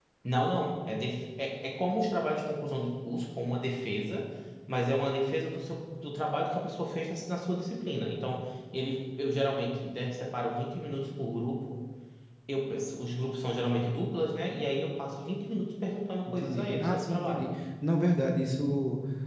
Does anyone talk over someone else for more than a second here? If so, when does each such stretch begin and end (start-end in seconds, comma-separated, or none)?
16.3-17.5